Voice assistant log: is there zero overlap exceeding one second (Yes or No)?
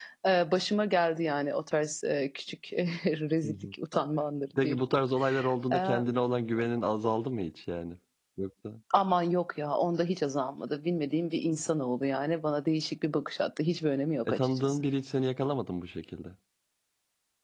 Yes